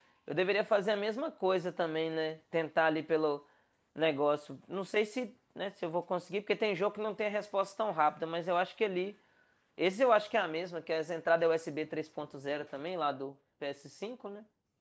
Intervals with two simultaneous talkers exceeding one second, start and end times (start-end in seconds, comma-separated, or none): none